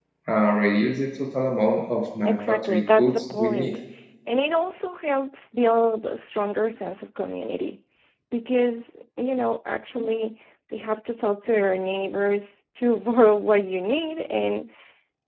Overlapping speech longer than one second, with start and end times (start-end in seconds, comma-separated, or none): 2.2-3.7